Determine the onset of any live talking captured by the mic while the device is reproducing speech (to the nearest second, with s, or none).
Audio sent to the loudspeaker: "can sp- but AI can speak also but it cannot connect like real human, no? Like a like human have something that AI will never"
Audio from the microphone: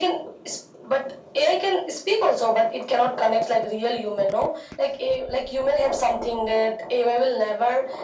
none